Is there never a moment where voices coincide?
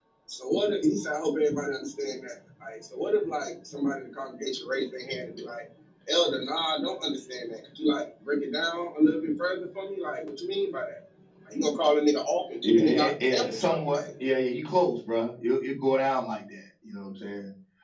No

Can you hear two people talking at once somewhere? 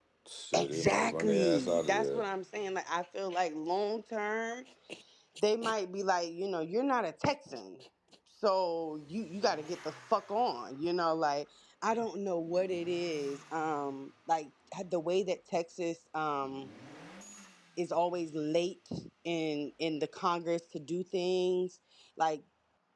Yes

